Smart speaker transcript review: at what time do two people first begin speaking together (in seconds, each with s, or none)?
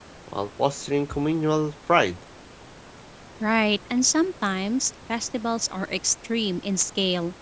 none